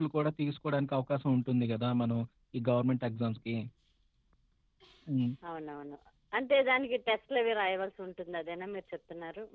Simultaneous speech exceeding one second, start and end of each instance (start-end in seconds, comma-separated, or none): none